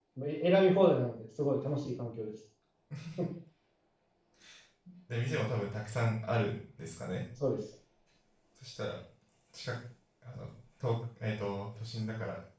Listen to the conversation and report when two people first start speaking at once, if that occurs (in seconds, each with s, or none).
none